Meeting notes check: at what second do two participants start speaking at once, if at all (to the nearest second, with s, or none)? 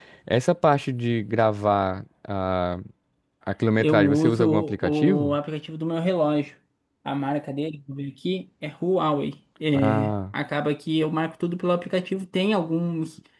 4 s